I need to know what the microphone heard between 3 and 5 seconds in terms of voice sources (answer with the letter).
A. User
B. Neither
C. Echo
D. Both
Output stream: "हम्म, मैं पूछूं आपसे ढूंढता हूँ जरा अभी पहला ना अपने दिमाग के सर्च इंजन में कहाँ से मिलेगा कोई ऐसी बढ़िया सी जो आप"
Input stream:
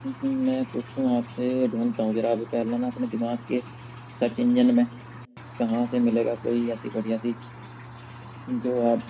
C